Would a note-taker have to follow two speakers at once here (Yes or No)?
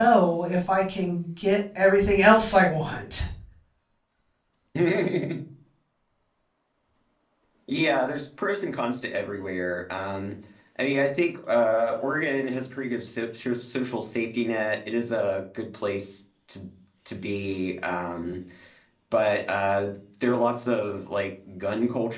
No